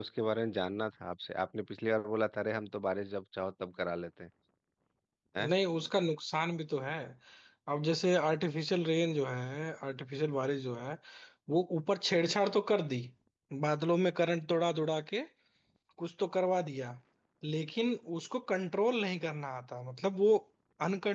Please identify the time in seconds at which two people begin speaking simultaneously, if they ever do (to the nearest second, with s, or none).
none